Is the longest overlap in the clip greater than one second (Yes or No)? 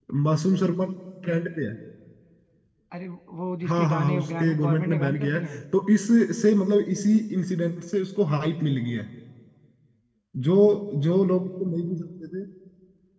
Yes